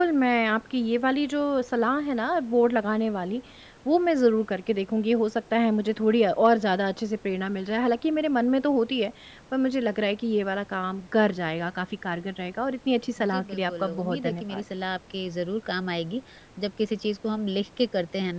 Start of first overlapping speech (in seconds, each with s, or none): 13.2 s